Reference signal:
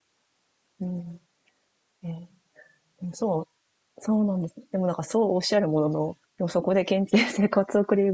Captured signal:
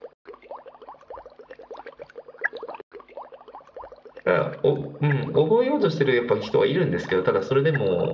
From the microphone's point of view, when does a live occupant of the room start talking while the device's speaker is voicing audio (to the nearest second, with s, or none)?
4 s